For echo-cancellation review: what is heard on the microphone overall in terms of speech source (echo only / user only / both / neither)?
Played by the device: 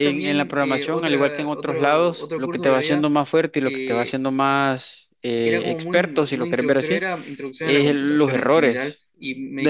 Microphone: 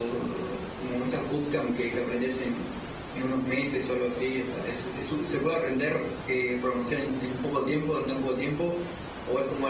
user only